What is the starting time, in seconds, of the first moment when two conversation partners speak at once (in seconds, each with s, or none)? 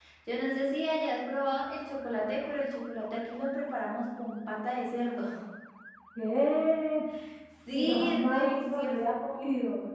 7.7 s